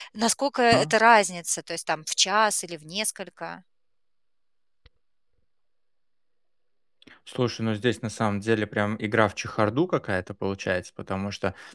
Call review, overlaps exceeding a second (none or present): none